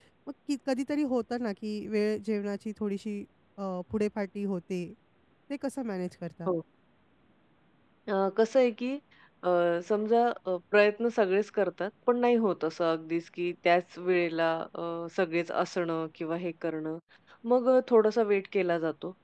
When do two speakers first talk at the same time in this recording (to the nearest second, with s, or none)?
none